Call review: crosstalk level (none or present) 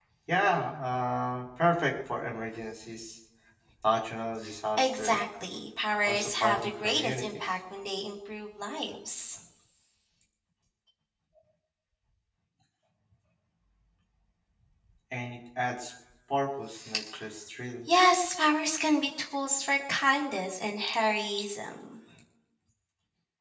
present